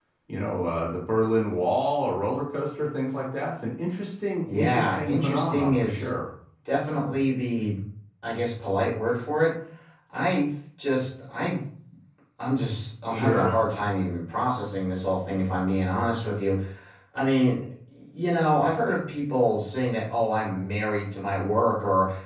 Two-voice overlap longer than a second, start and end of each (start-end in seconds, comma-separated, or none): 4.4-6.1